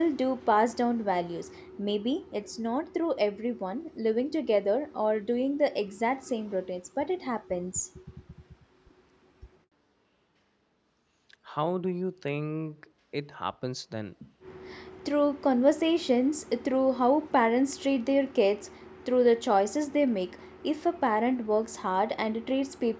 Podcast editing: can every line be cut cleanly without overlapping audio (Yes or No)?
Yes